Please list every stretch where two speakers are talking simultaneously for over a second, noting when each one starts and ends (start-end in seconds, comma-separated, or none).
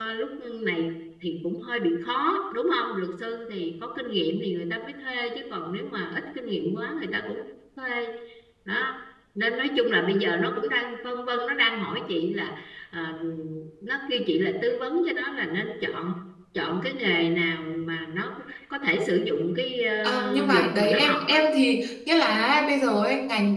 20.0-21.4